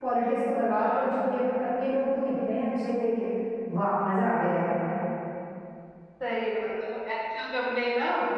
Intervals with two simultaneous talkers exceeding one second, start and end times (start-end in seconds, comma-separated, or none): none